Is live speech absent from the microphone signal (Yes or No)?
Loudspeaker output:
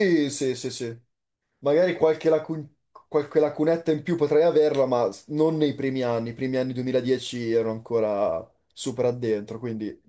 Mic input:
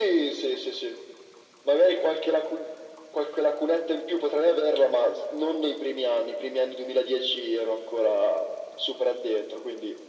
Yes